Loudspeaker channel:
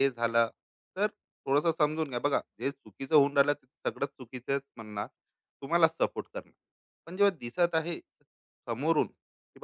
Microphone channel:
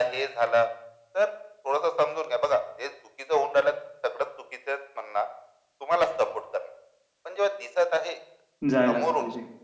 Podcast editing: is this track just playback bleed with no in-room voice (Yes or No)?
No